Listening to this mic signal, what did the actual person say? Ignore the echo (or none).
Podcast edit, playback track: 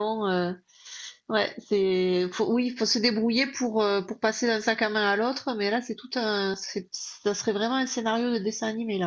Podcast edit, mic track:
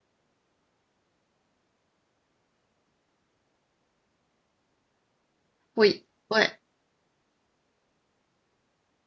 Oui, ouais,